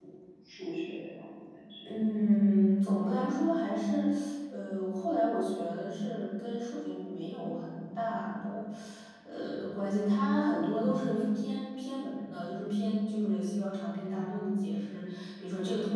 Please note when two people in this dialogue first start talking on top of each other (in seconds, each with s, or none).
none